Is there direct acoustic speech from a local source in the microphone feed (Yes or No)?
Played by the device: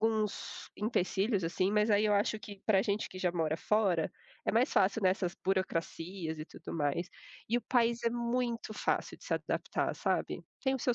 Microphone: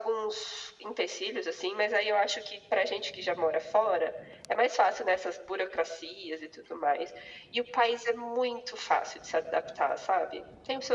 No